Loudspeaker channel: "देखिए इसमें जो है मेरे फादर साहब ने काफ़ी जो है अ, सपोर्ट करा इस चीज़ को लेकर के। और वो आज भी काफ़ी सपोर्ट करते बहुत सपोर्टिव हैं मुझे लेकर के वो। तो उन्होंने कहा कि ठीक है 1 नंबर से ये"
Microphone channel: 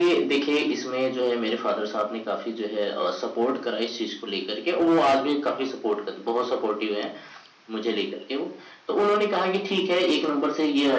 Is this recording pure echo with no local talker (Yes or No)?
Yes